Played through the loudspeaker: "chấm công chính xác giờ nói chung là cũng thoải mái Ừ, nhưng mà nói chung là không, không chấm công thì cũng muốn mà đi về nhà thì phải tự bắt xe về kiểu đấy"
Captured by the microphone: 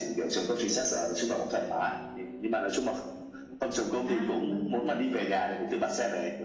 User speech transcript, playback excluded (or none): à bảo hiểm